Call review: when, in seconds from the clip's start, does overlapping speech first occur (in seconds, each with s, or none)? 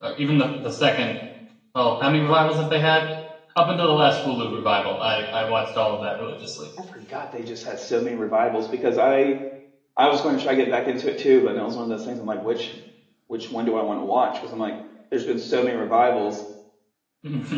none